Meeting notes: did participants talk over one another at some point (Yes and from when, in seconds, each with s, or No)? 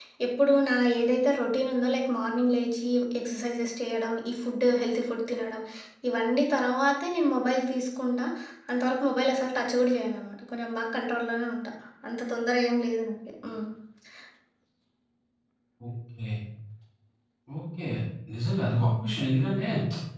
No